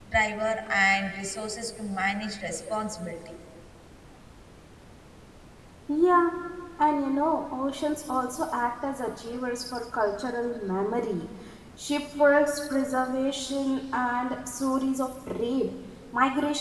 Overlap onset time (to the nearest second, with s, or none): none